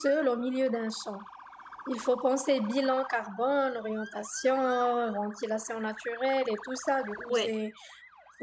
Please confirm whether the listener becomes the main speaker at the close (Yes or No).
No